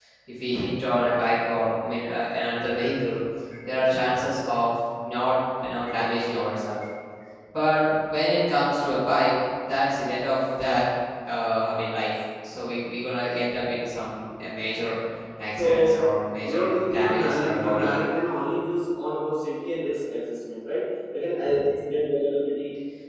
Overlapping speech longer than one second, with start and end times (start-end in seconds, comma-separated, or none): 16.4-18.0